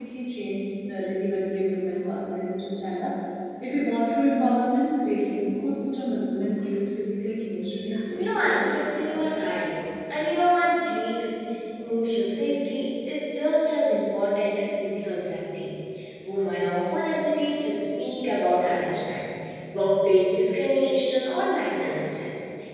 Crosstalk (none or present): present